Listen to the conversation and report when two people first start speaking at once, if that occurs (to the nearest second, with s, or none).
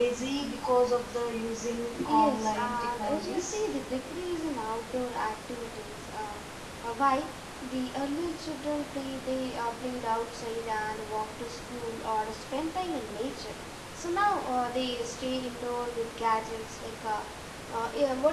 2 s